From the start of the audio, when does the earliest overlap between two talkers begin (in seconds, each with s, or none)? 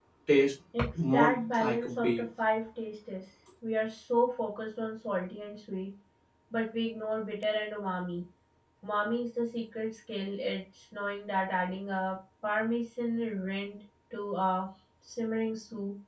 1.0 s